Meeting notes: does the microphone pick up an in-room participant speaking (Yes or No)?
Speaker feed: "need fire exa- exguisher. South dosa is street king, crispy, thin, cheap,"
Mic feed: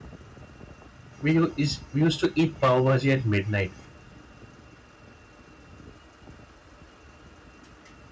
Yes